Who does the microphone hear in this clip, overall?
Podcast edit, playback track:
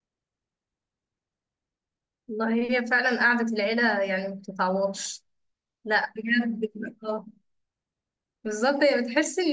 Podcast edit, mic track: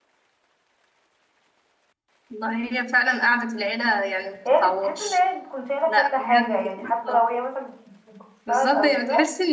both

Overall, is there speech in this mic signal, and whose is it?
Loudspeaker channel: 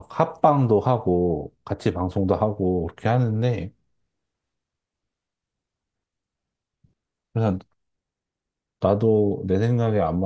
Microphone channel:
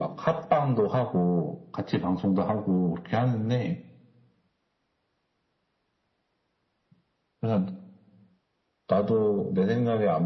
echo only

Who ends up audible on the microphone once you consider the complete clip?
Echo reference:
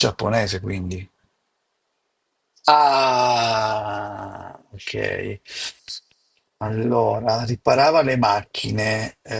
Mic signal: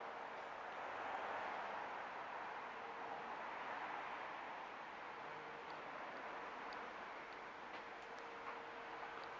neither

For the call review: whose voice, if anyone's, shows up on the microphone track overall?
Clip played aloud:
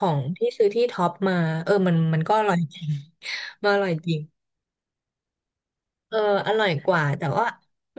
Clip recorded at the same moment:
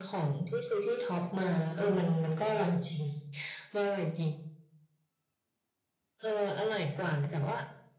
echo only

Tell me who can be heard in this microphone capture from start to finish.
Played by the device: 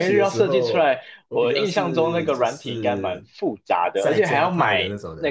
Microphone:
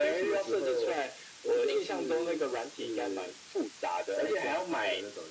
echo only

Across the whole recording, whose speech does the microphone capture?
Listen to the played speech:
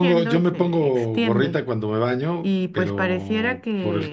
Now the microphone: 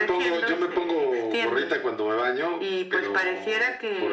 echo only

